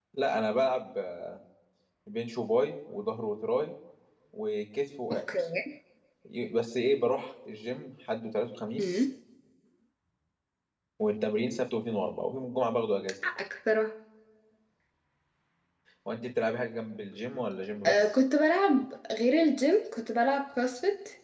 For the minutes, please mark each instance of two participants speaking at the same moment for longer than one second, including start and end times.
none

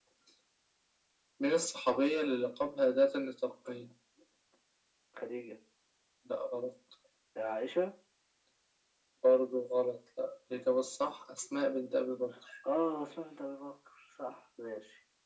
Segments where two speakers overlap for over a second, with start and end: none

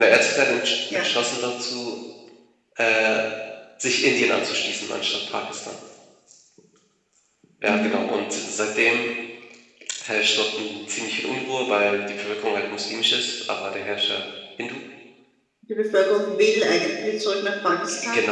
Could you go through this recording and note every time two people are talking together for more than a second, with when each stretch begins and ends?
none

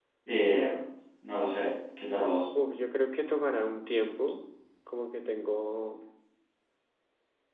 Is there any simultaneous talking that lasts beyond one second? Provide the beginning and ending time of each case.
none

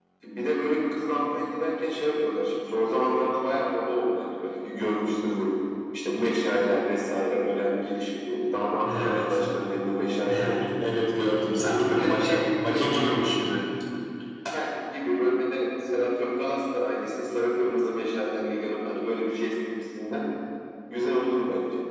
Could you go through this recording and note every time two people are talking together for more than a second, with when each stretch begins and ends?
11.6-13.3

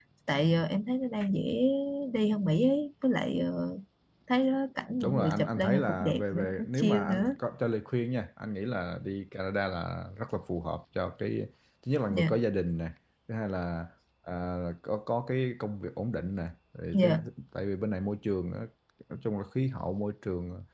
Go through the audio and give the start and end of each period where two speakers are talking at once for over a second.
5.0-7.3

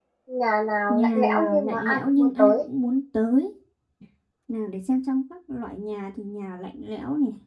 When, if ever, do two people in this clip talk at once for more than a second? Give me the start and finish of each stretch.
0.9-2.6

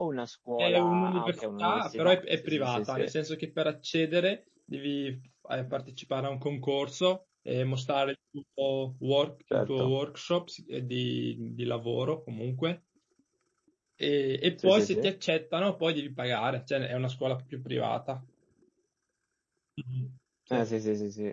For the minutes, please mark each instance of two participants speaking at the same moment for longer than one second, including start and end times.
0.6-3.1

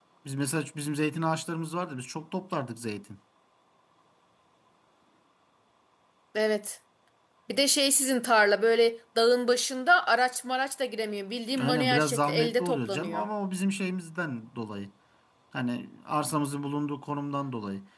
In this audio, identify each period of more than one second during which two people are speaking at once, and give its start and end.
11.6-13.3

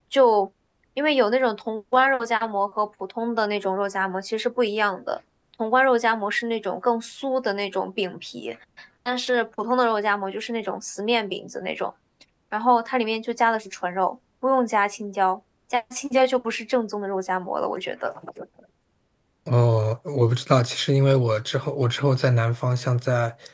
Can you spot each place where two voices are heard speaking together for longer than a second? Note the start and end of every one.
none

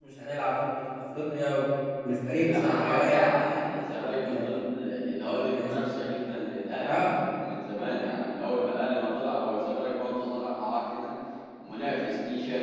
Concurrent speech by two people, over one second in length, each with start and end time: 2.4-4.6

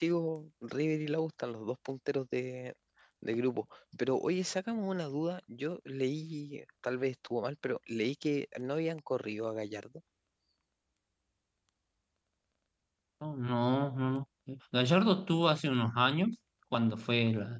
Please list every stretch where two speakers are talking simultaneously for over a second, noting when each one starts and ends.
none

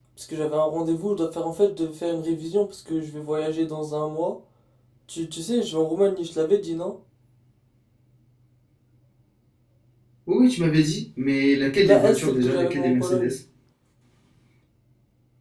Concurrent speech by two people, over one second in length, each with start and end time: 11.8-13.3

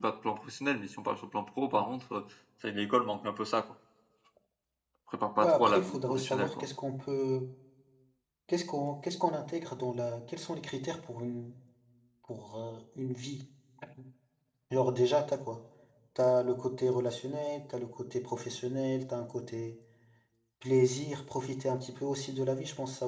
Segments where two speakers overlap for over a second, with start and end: 5.4-6.7

